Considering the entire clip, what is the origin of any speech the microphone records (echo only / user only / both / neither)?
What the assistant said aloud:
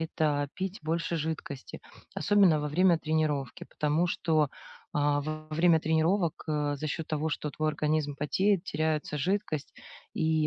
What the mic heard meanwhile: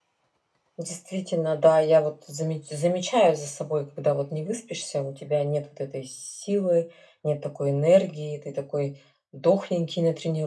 user only